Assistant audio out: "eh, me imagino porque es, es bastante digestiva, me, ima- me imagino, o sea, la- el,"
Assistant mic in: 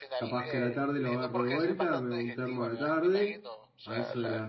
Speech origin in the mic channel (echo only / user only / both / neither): both